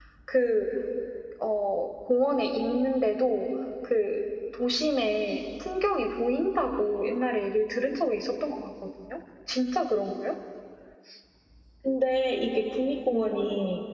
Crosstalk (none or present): none